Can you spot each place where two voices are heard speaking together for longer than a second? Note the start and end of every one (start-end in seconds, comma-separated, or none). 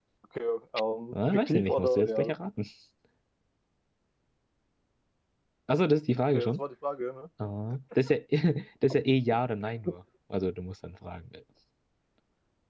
1.1-2.3